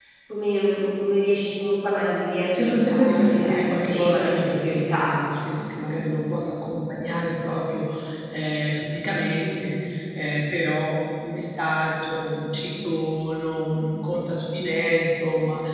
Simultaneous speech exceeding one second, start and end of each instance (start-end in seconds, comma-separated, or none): 2.5-5.1